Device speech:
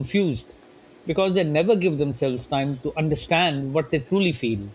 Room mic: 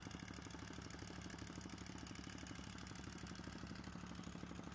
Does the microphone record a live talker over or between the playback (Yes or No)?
No